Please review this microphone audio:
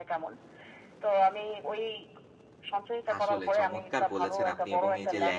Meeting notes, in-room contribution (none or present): present